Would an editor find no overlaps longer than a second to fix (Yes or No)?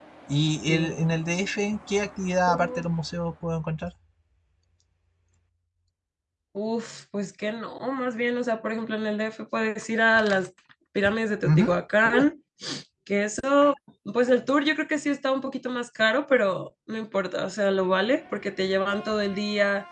Yes